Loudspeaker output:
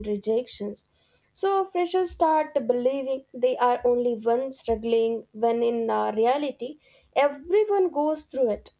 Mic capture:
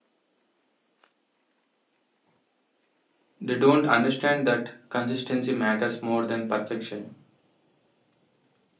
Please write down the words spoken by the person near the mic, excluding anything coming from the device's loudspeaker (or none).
They don't understand that consistency matters more than perfection.